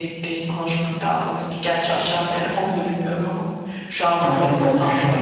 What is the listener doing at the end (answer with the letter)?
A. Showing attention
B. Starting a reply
B